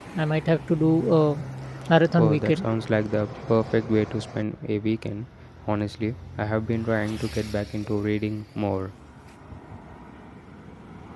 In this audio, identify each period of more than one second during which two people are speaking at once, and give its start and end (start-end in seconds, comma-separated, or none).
none